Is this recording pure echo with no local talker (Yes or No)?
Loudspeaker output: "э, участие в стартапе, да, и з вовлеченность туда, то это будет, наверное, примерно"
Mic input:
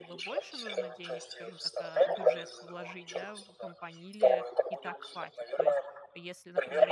No